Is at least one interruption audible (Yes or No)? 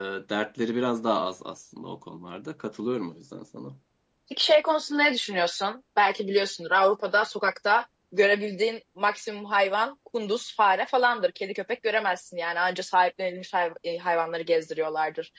No